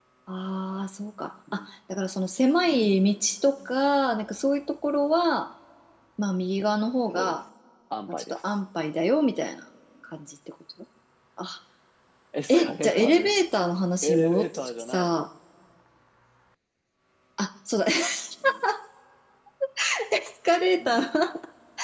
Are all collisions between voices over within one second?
No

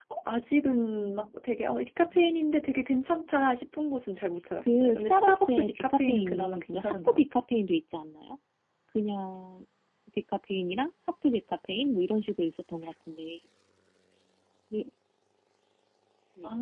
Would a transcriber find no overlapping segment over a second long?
No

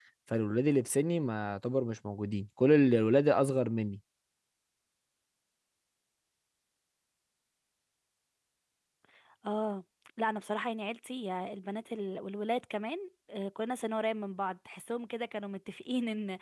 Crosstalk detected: No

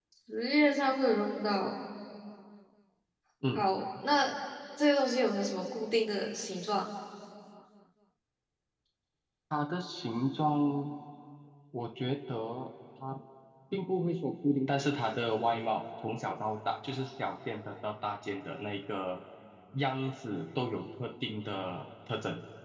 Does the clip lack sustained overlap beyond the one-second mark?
Yes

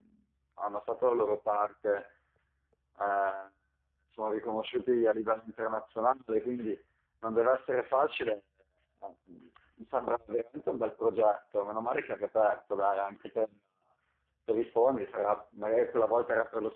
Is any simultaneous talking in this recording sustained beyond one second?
No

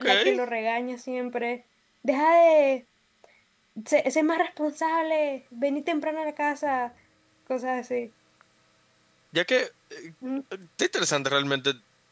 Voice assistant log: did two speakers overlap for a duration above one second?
No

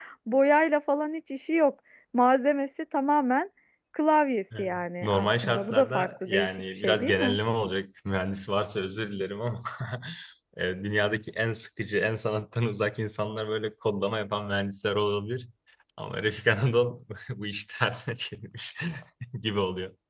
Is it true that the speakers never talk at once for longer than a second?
No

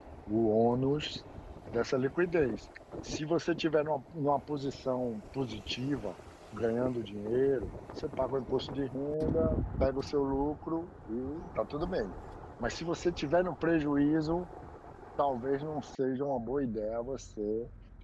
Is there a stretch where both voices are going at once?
No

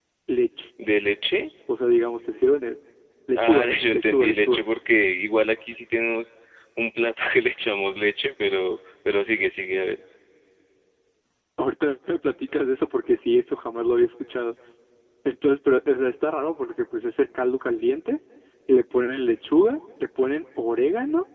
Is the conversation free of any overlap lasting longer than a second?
No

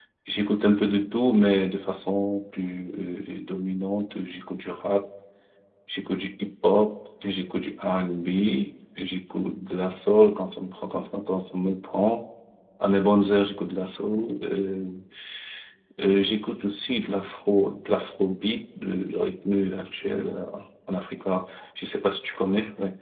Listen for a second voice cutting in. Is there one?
No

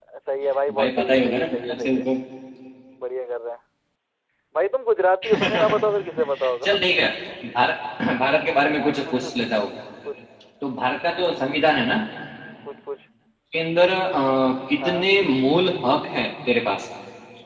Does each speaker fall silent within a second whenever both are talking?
No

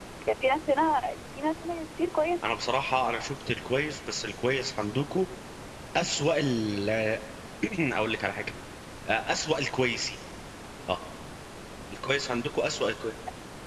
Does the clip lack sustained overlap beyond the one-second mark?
Yes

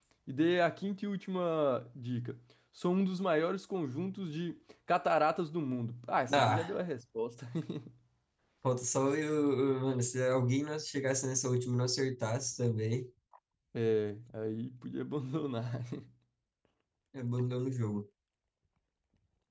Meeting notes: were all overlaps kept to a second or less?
Yes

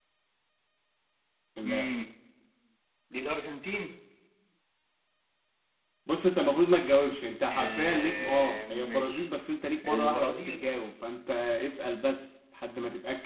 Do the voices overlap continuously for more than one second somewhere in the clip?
Yes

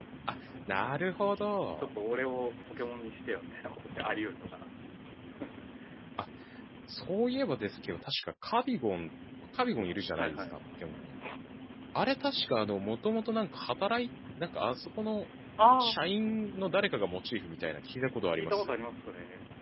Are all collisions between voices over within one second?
Yes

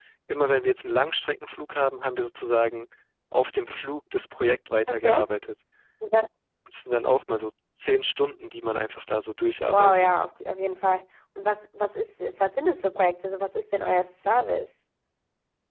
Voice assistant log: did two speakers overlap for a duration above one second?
No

